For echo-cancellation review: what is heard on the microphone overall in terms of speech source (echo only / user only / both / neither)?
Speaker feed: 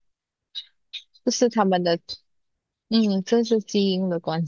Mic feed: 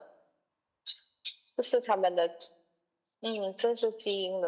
echo only